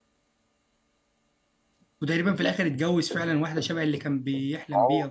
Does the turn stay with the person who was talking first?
No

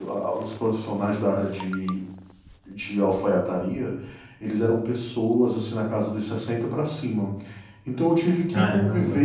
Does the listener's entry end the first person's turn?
No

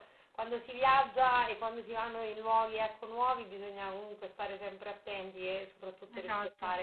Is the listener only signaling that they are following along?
Yes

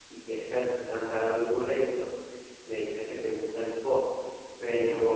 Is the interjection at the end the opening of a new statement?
No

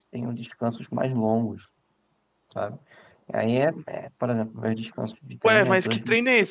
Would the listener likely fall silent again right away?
No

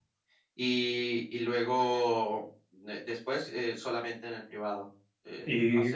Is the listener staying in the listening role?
No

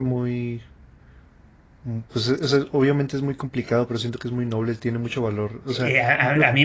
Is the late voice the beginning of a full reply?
Yes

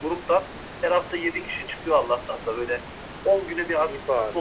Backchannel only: Yes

